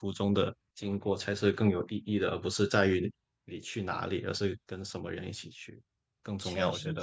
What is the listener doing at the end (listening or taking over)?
taking over